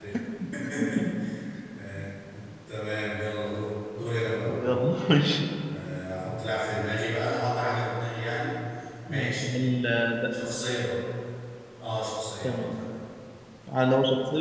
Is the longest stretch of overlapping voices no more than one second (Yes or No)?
Yes